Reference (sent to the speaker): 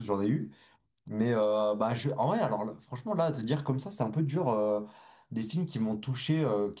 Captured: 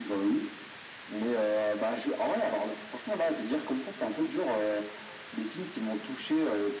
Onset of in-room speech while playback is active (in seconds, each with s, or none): none